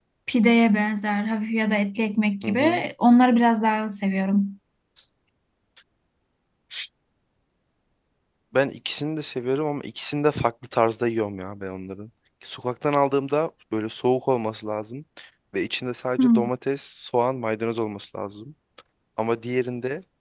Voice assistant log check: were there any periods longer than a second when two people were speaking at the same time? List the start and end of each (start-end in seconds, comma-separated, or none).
none